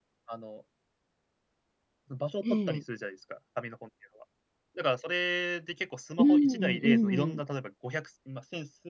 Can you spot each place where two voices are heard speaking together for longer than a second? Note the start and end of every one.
6.2-7.4

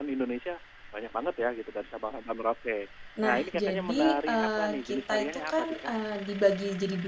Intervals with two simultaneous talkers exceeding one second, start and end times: 3.2-5.9

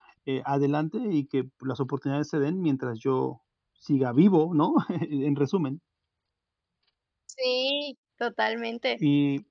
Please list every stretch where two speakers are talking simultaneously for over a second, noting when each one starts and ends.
none

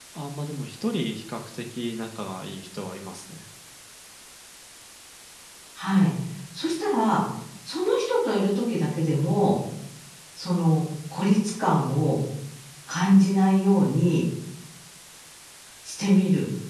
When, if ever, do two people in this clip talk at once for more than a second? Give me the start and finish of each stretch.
none

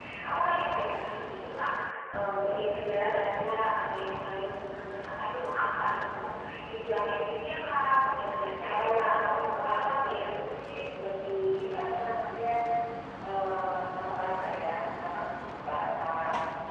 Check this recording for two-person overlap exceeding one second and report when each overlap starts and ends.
8.7-10.2

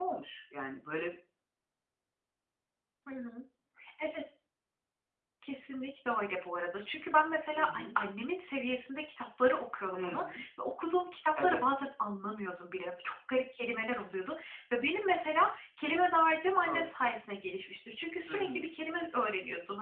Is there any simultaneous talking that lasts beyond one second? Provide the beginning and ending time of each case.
none

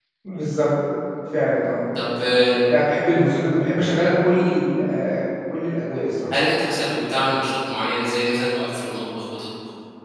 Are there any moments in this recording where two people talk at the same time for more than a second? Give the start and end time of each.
none

